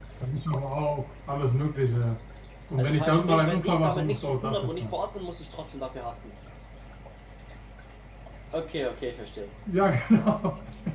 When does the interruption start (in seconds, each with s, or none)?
2.8 s